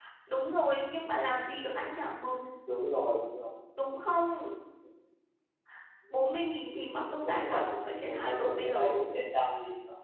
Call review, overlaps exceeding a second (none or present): present